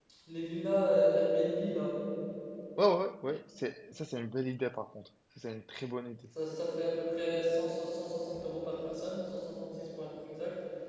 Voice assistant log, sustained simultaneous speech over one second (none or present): none